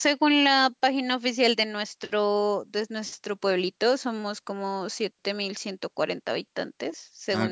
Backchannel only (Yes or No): Yes